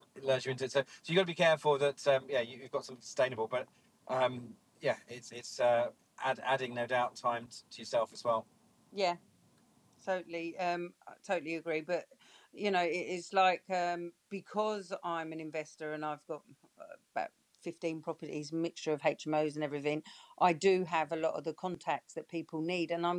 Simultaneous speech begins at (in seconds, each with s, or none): none